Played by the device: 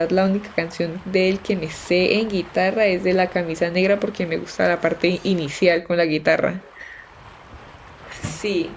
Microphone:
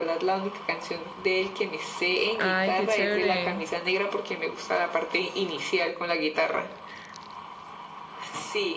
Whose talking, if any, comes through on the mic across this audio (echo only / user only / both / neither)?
both